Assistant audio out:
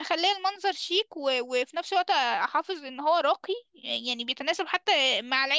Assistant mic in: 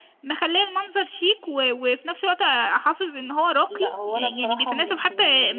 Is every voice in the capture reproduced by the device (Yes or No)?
No